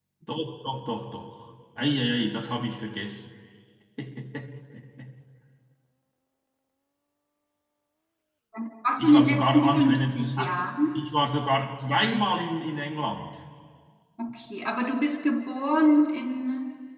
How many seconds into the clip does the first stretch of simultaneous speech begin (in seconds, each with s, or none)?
9.0 s